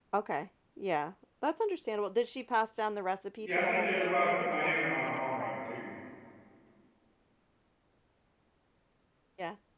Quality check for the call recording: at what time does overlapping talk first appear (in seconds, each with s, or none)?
3.4 s